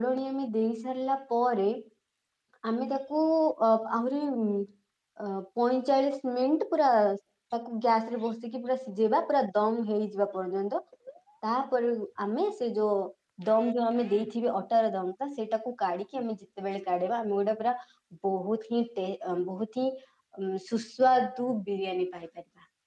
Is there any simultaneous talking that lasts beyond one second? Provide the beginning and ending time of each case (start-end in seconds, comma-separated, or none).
none